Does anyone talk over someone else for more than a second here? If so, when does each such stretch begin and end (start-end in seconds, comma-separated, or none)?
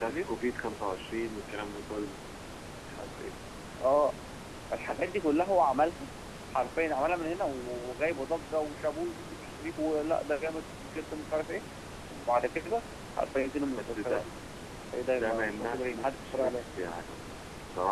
15.1-16.6